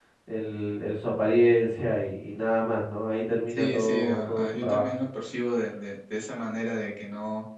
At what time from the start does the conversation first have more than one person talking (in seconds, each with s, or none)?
3.5 s